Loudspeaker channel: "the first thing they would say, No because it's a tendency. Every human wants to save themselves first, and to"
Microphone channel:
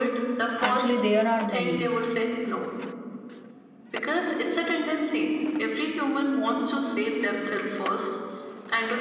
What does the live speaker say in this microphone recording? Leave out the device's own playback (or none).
Actually, there are many.